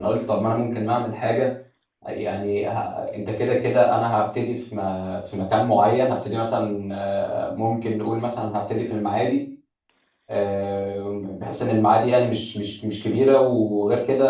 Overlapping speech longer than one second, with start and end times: none

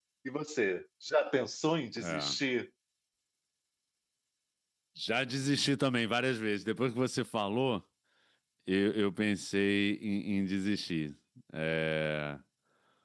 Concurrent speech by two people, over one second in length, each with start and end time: none

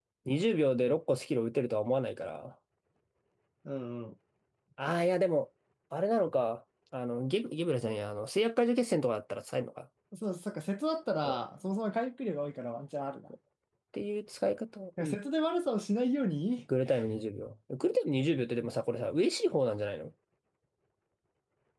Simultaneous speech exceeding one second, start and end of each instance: none

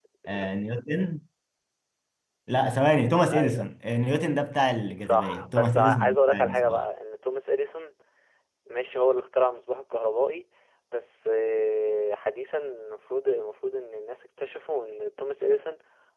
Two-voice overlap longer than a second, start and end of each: 5.0-6.8

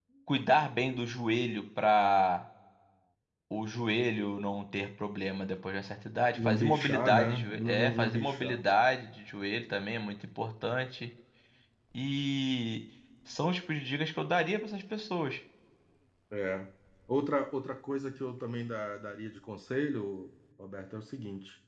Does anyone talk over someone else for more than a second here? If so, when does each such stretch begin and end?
6.3-8.6

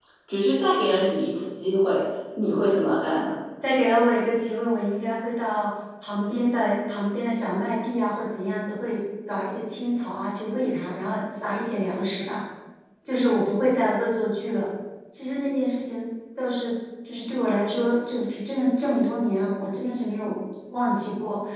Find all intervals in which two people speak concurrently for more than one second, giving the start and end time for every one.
none

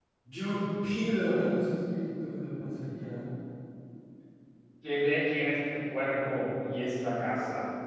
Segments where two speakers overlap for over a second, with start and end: none

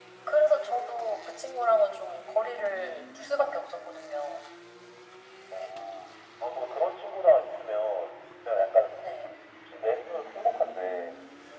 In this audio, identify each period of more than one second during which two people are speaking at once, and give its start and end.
none

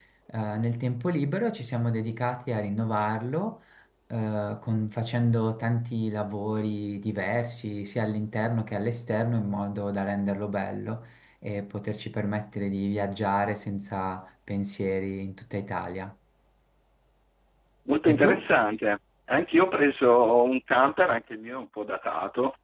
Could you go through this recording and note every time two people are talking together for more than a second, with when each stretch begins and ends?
none

